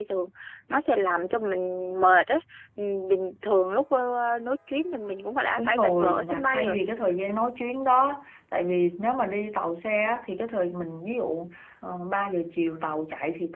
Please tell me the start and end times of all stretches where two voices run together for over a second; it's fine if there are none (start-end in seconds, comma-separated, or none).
5.6-6.8